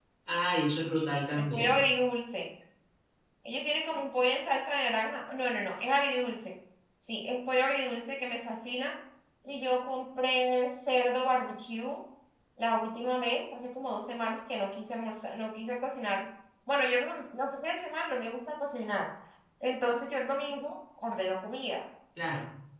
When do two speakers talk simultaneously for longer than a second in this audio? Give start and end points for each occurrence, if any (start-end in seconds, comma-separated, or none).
none